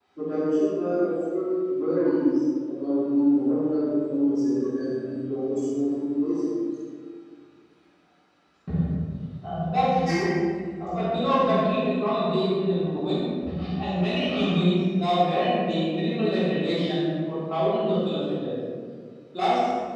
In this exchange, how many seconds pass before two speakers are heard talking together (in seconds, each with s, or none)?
none